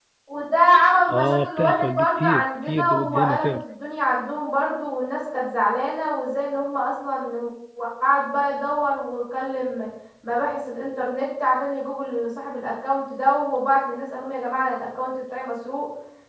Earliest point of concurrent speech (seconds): 1.1 s

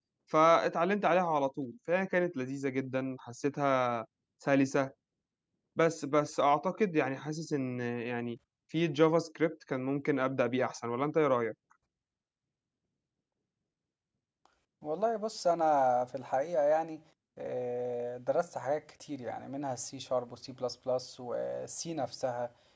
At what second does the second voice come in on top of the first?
none

